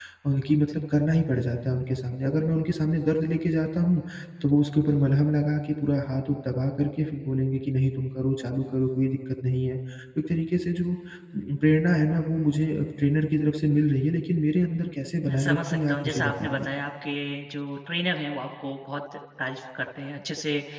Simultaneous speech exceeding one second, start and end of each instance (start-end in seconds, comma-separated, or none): 15.2-16.6